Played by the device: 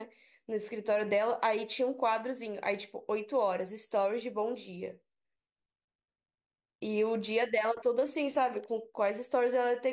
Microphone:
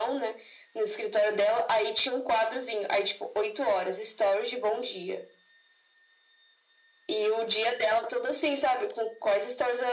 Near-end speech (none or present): none